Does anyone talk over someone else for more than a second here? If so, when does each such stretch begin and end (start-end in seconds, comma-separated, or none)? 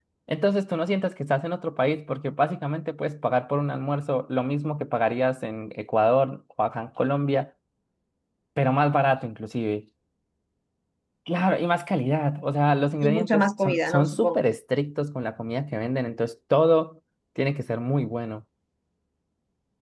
13.0-14.5